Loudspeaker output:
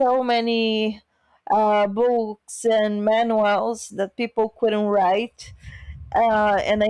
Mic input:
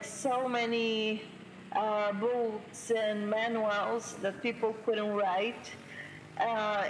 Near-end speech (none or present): none